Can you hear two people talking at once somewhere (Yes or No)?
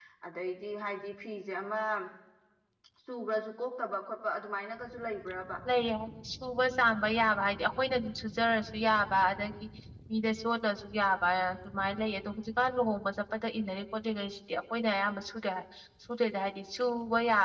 No